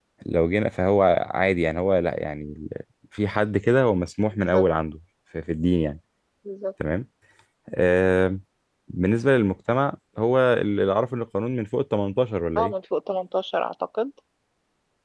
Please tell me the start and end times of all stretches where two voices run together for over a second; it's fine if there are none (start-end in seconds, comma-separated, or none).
none